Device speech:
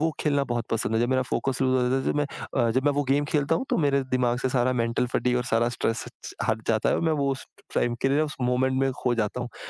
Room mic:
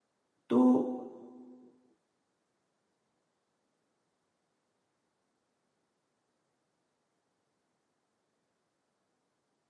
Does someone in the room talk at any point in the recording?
Yes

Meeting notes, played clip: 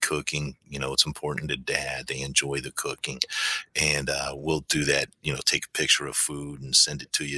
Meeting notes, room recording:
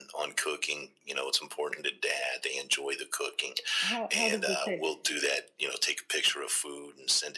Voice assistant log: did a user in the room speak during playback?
Yes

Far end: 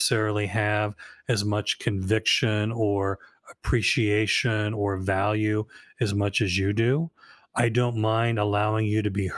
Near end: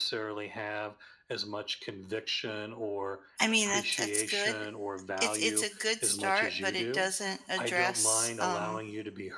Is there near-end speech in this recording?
Yes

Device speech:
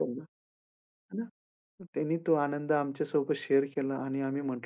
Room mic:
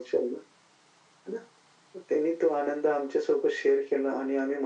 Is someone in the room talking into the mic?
No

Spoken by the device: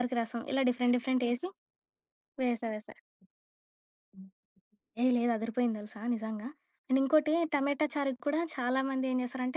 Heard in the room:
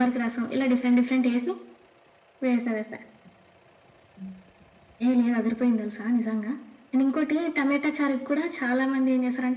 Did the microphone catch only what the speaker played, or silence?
Yes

